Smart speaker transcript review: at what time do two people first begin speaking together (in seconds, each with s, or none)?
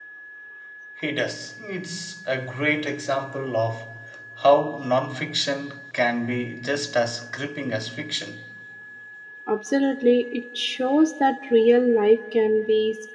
none